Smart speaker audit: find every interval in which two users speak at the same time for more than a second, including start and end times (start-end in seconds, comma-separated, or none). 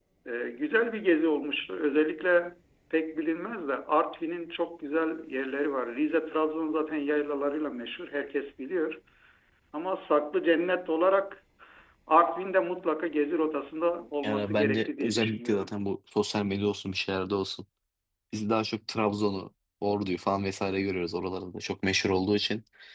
14.2-15.7